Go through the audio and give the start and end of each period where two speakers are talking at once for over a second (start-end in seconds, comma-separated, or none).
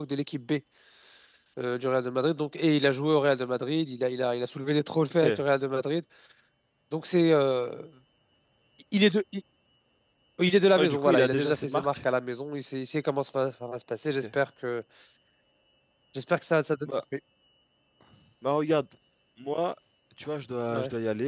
10.8-12.0